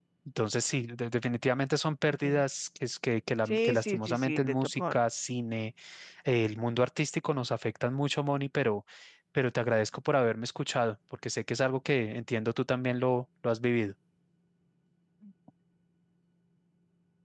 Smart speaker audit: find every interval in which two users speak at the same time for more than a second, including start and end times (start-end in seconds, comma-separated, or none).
3.5-5.0